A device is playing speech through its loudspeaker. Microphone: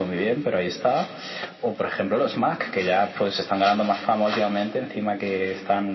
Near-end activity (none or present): none